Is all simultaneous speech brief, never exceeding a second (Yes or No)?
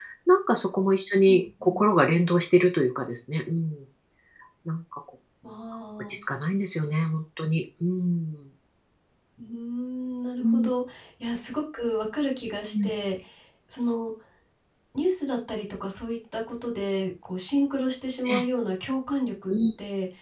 Yes